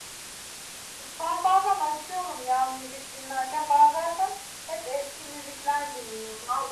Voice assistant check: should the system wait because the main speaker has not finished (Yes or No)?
No